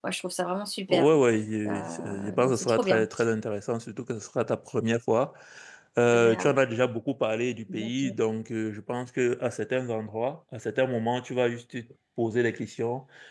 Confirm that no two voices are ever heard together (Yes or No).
No